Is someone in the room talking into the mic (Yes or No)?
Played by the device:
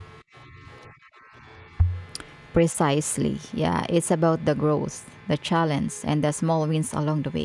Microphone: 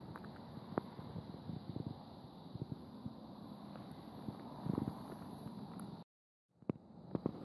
No